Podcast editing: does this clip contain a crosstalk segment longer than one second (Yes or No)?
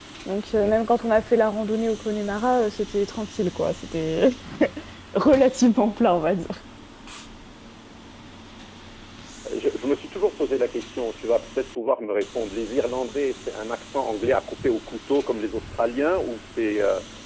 No